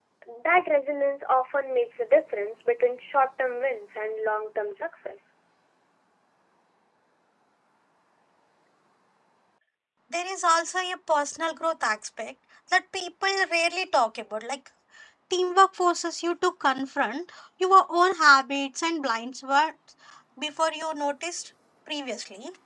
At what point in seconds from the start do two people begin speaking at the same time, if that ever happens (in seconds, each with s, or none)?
none